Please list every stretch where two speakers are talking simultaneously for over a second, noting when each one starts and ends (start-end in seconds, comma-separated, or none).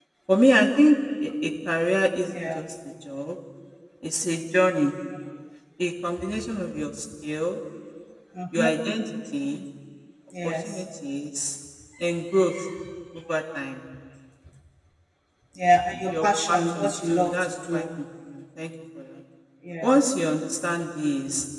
15.9-17.8